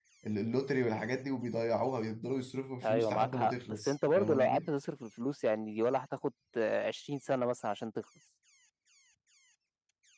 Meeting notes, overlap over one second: present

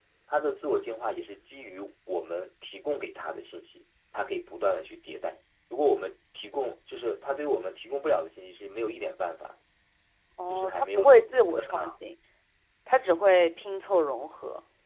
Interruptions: present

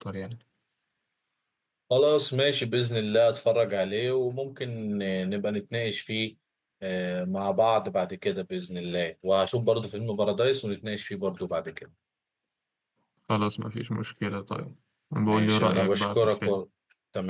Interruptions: present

